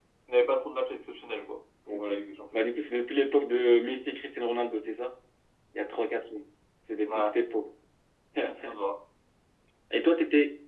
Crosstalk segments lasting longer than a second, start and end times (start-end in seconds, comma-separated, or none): none